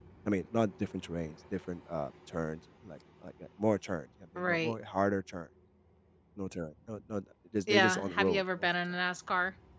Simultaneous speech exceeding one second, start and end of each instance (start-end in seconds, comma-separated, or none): 7.7-8.9